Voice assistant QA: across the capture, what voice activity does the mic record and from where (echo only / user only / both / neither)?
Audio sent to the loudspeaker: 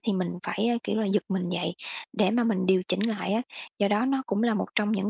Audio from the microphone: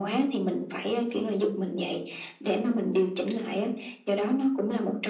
echo only